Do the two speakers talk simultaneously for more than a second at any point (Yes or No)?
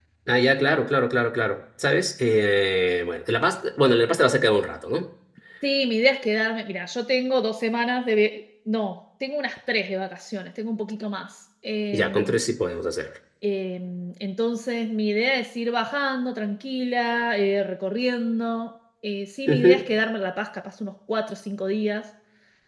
No